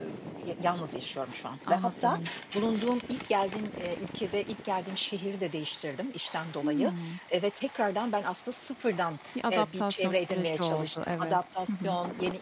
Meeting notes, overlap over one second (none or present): present